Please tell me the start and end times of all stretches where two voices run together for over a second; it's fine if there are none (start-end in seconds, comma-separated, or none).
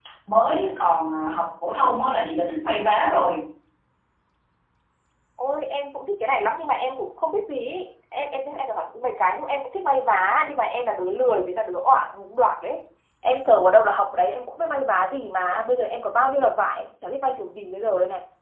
none